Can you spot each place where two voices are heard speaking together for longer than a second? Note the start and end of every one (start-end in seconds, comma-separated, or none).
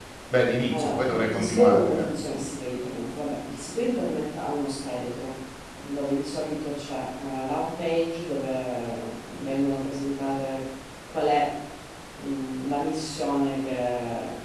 0.7-2.4